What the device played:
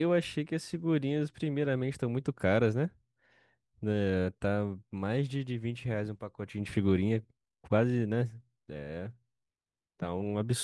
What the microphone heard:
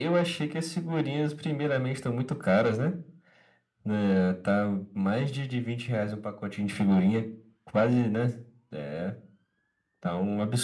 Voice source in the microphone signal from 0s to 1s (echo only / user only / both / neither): echo only